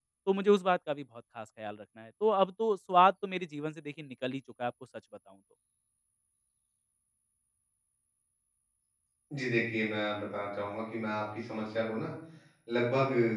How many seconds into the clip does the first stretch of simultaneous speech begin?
none

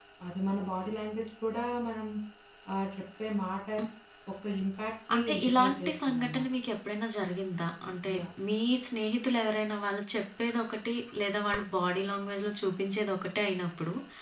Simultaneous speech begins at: 5 s

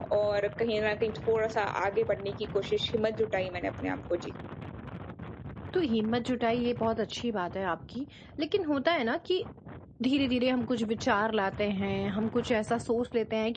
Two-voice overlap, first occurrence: none

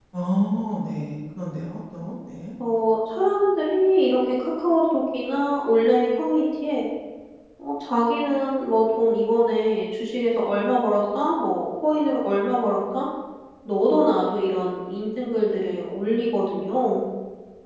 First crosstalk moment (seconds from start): none

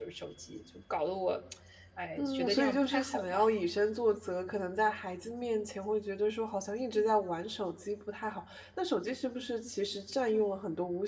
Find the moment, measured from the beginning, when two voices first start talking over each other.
2 s

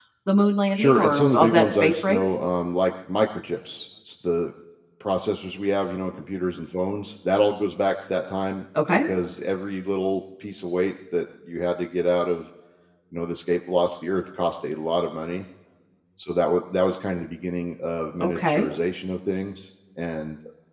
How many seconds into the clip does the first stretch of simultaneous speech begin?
1 s

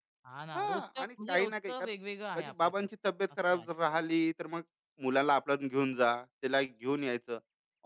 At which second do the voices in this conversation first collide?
1 s

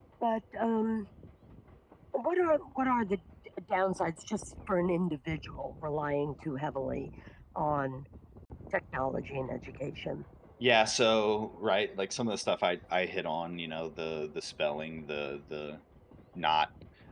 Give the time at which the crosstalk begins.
none

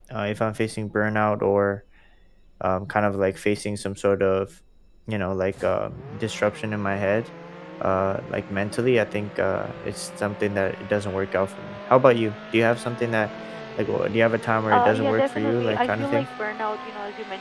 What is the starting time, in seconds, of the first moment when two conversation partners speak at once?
15 s

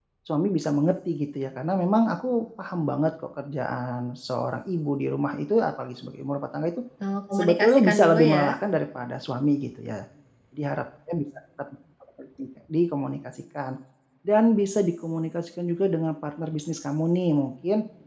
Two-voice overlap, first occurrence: 7 s

